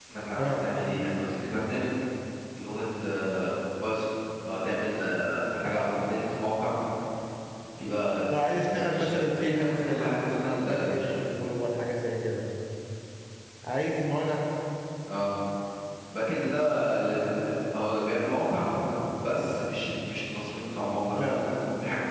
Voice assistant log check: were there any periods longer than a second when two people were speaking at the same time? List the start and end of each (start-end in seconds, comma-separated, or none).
8.3-11.1